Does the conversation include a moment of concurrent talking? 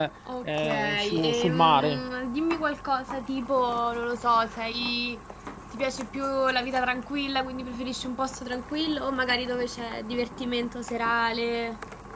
Yes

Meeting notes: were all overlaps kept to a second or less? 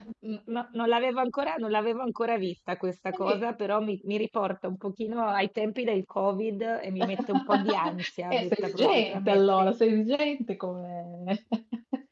No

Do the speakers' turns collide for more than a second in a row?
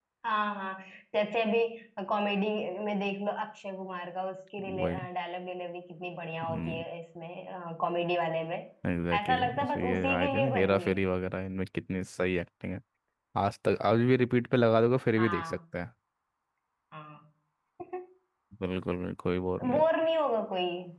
Yes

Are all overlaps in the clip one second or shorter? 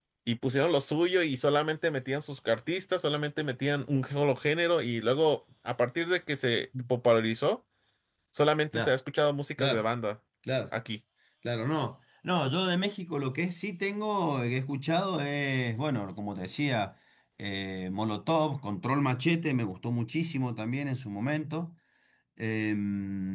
Yes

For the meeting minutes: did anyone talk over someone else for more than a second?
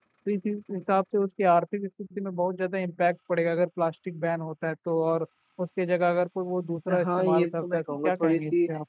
Yes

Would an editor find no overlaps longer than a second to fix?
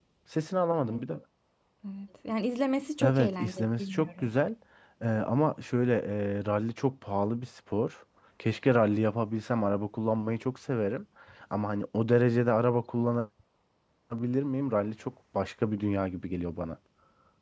No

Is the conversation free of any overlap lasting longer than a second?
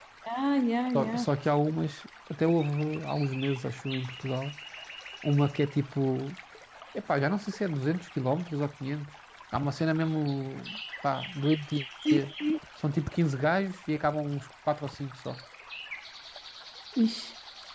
Yes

